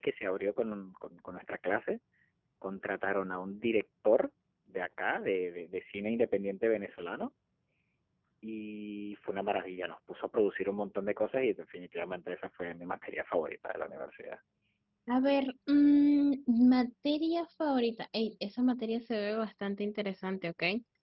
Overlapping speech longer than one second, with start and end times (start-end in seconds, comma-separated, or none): none